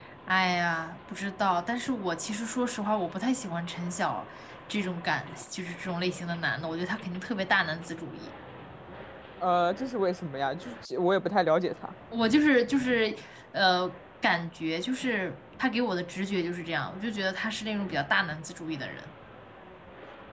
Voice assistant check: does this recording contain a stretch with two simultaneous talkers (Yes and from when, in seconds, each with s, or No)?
No